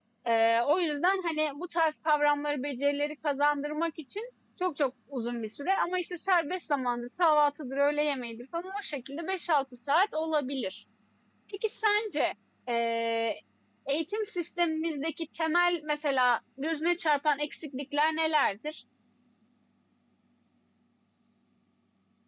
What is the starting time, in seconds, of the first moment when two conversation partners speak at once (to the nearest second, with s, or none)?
none